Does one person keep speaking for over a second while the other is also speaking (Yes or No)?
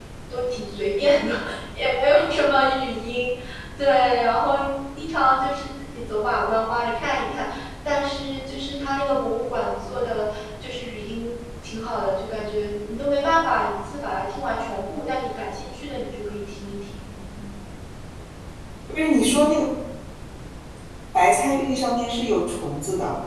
No